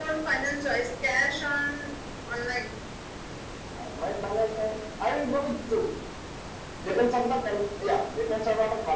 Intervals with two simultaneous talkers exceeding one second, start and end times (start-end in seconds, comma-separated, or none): none